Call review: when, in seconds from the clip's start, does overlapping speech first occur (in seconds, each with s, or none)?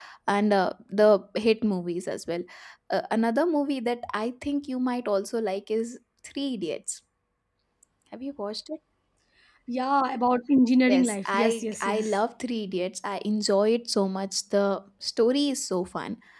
10.9 s